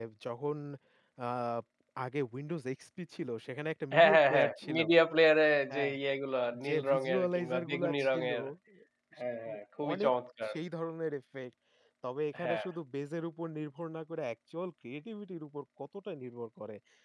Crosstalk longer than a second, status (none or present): present